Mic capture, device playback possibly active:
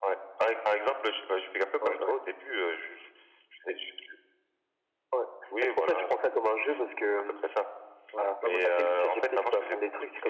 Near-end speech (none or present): present